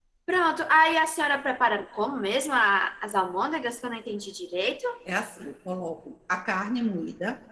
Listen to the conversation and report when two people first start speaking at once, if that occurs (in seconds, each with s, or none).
none